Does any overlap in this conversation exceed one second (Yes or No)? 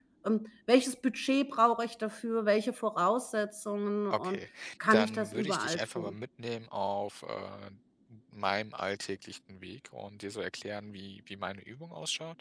Yes